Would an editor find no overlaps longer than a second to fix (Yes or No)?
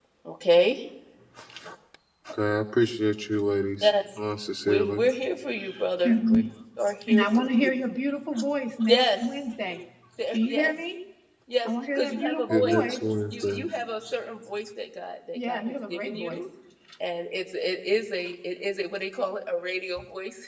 No